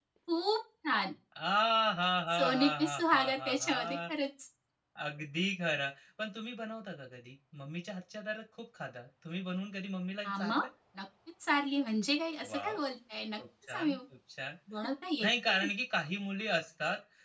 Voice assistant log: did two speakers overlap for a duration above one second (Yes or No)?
Yes